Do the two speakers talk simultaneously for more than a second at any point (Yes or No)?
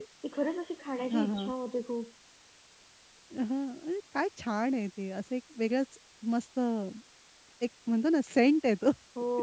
No